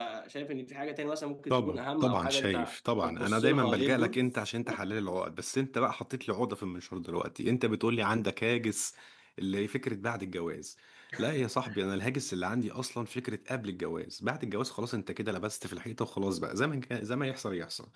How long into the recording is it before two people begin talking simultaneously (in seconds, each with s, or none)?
1.5 s